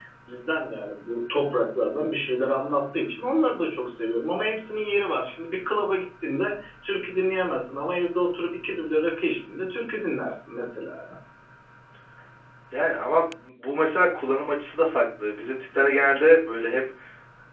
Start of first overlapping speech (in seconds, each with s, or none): none